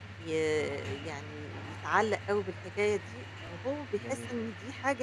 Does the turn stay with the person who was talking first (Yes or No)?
Yes